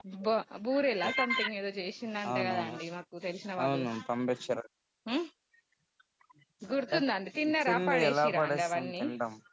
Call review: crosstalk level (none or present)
present